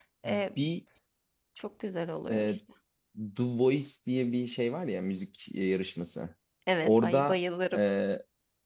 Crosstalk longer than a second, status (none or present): none